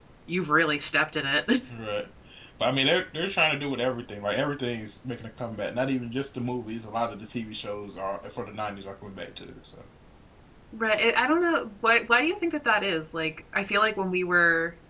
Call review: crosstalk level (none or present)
none